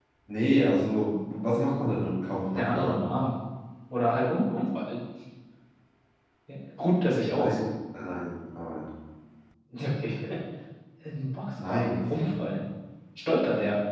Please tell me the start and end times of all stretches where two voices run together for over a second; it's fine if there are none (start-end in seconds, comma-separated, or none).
none